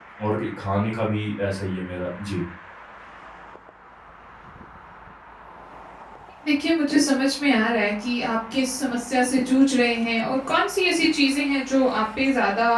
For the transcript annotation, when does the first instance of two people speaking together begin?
none

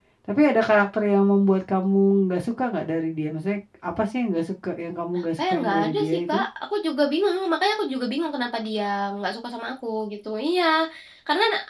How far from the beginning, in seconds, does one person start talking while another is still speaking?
5.1 s

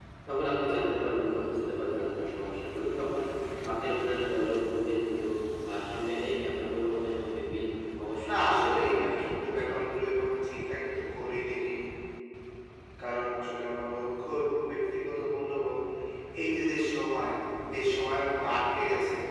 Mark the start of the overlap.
8.3 s

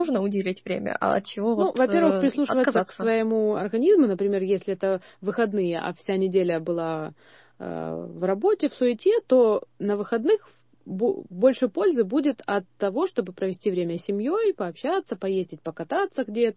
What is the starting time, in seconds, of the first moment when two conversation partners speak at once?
1.6 s

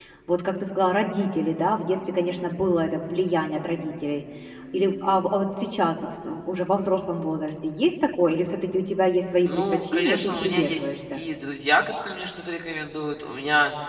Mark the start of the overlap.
9.4 s

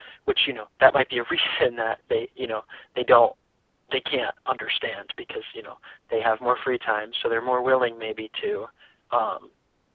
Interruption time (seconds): none

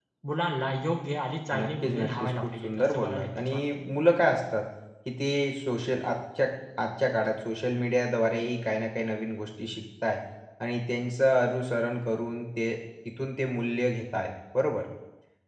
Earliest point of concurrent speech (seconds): 1.5 s

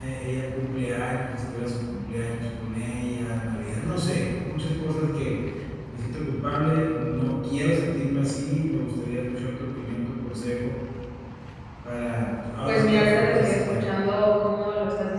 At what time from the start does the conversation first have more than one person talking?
12.6 s

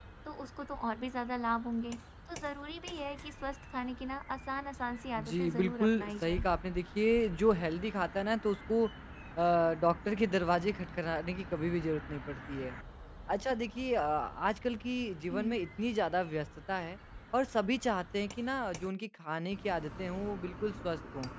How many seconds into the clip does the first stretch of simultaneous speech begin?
5.2 s

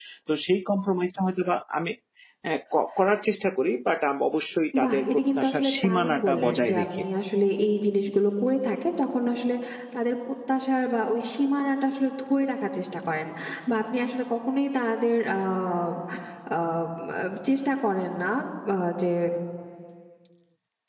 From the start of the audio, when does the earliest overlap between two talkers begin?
4.7 s

